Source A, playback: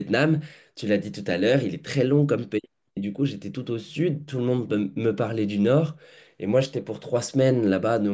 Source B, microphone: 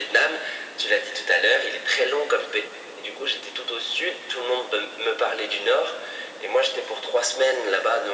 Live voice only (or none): none